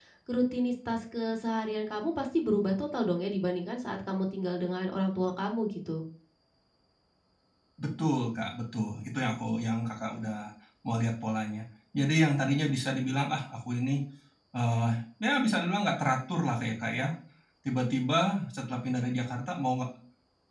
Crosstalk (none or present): none